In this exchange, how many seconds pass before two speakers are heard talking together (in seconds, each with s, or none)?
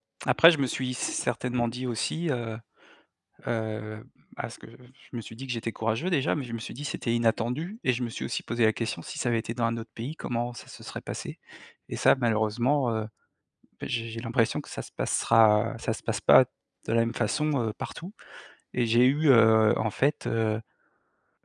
none